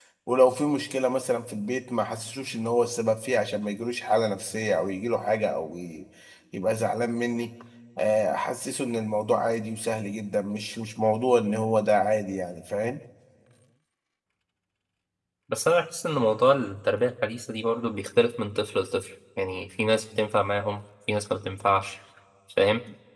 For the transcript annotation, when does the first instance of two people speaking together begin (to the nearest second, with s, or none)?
none